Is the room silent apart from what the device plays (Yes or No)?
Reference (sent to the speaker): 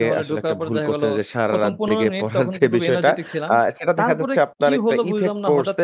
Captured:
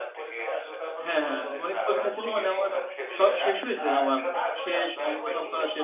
No